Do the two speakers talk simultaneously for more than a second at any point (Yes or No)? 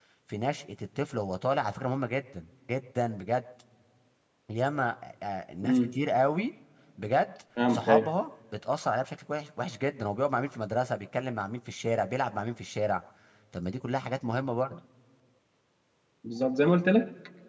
No